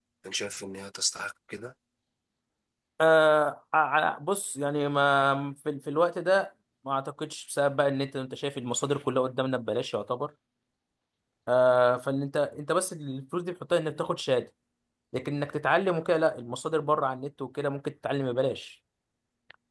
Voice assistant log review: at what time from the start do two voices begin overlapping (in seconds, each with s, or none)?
none